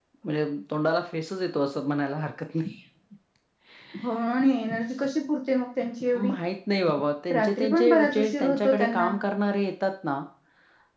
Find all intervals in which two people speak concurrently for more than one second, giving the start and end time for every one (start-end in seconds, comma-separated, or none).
7.3-9.1